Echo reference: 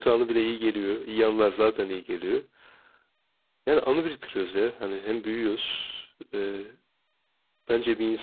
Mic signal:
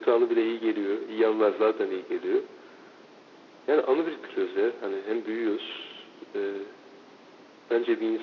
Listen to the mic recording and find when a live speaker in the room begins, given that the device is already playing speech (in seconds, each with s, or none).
none